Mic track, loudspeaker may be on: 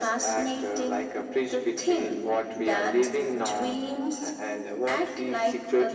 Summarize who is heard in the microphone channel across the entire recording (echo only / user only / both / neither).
echo only